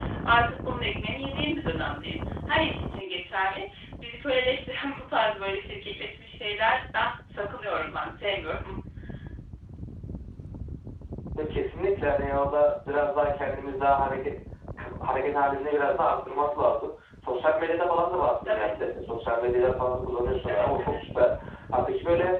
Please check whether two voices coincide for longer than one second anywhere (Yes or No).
No